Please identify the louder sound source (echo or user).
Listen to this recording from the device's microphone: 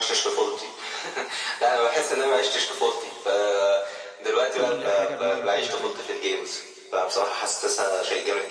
echo